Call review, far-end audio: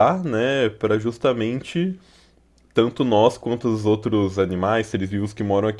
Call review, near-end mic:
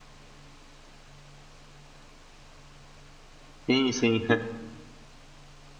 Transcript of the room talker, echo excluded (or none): sim, sim.